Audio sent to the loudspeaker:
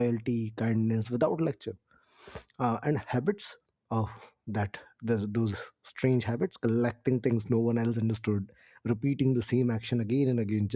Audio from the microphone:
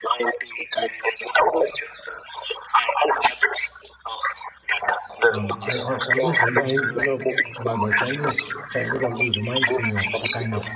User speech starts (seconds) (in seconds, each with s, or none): 5.3 s